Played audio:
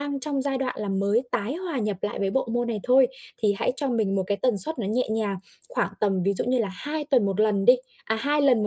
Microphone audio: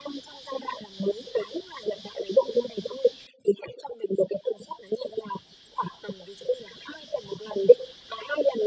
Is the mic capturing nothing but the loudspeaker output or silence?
Yes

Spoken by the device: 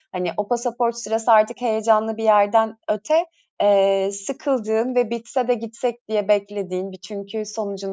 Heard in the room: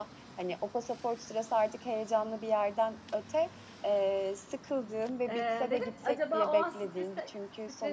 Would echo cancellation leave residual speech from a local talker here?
Yes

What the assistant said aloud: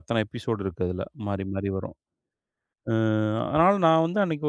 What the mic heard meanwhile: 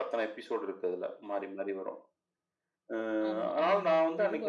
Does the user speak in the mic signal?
Yes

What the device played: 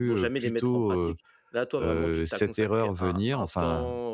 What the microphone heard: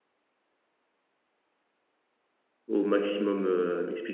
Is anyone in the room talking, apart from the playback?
Yes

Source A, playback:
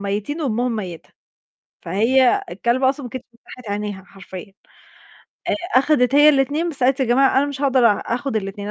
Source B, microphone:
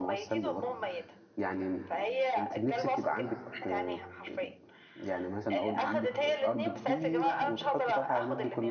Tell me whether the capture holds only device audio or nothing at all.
No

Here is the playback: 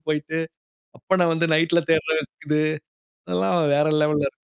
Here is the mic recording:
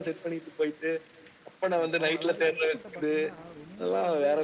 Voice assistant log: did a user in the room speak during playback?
Yes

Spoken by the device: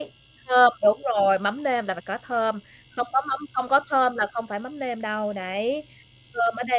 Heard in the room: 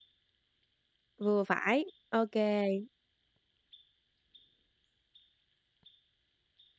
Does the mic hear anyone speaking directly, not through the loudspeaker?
Yes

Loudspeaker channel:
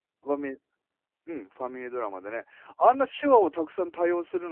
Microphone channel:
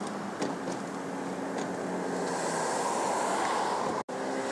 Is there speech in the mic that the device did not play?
No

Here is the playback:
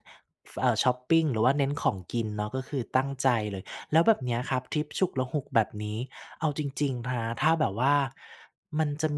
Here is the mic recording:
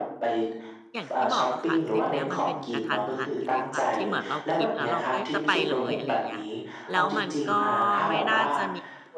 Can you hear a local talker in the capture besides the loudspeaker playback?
Yes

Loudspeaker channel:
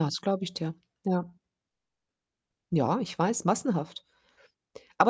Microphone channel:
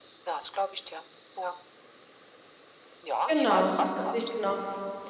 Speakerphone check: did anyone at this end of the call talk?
Yes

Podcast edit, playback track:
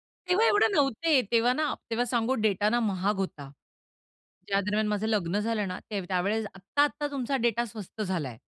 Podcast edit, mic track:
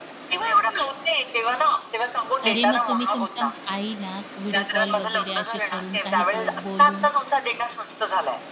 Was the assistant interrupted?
Yes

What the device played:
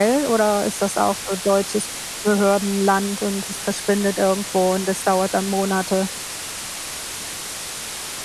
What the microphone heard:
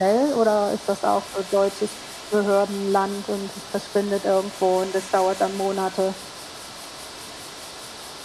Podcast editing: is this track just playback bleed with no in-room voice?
Yes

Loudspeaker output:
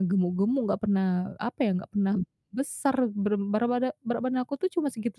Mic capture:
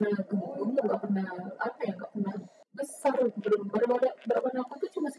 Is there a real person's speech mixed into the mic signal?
Yes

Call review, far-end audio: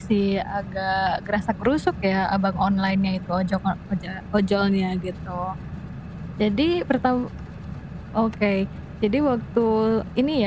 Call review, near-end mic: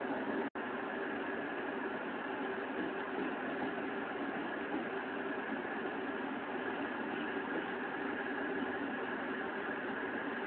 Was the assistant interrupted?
No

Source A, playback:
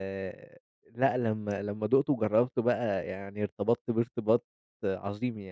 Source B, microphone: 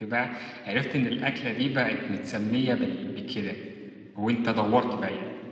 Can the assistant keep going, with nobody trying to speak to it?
No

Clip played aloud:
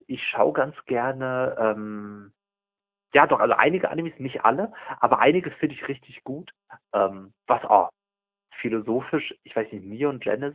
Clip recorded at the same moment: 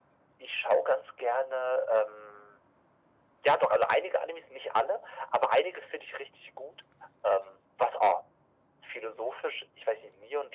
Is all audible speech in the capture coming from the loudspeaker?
Yes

